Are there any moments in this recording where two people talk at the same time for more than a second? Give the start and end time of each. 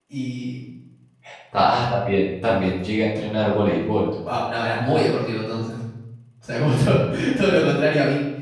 none

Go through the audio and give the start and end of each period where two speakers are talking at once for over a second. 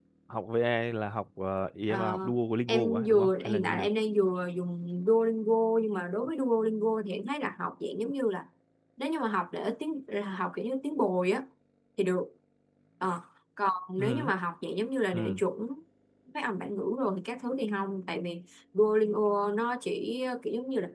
2.7-3.9

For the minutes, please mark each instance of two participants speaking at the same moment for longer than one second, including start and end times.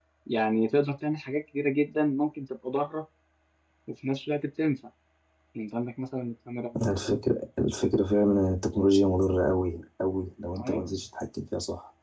none

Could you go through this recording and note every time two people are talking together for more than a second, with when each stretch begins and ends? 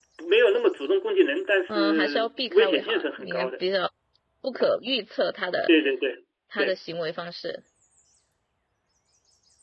1.7-3.5

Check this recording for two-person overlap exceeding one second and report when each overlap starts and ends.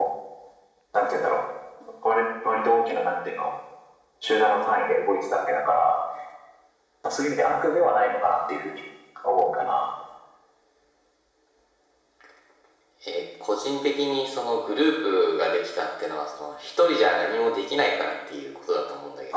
none

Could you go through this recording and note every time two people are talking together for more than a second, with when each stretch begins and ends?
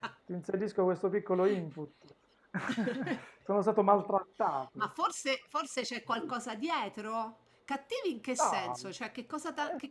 none

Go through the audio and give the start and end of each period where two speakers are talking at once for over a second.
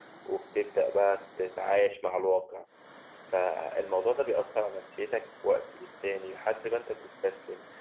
none

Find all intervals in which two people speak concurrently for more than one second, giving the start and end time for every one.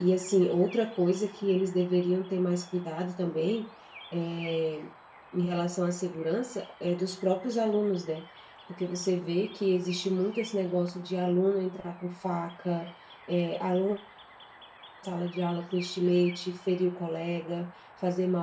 none

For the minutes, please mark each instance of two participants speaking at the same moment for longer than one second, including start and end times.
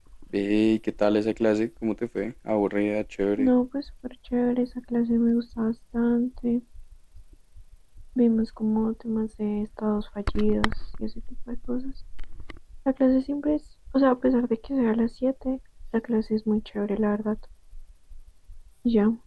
none

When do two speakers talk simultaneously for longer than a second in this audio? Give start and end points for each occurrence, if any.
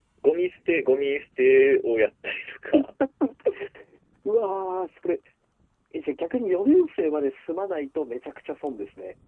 none

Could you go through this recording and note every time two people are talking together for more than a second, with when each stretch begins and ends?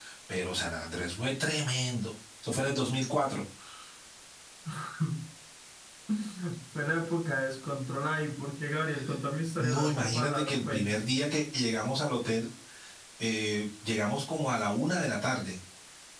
9.6-10.9

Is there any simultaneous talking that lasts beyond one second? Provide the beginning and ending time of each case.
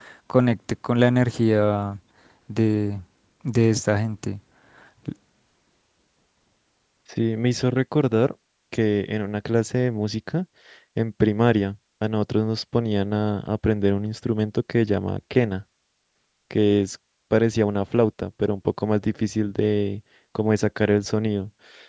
none

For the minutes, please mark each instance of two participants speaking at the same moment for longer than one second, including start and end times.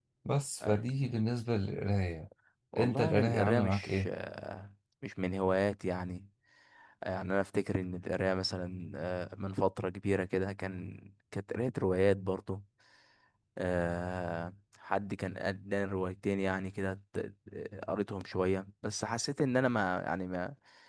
2.8-4.1

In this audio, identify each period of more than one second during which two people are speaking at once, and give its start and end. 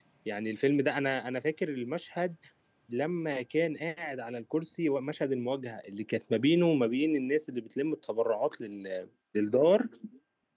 none

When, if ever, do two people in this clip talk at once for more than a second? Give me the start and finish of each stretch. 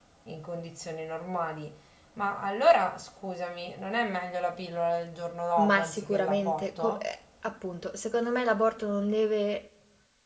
5.6-7.0

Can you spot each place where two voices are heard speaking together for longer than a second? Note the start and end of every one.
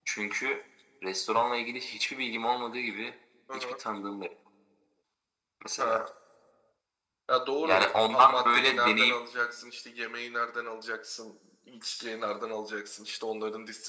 7.6-9.2

